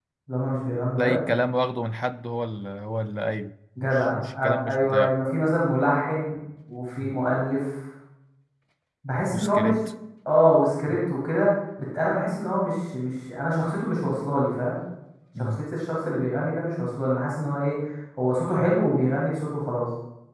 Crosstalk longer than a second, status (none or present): present